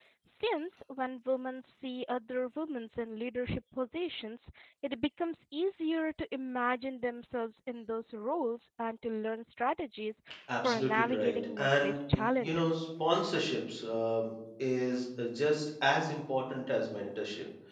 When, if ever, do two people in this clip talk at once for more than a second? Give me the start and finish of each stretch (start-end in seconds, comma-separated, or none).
10.6-12.8